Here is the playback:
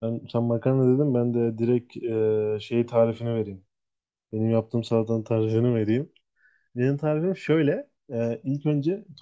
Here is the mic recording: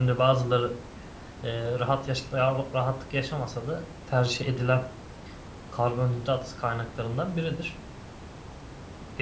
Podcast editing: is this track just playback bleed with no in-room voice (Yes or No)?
No